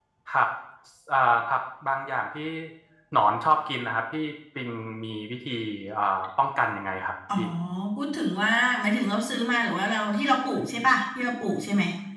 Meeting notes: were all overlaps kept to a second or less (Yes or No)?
Yes